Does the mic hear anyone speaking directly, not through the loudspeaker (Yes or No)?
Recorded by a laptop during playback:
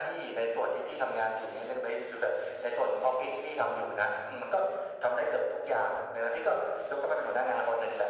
No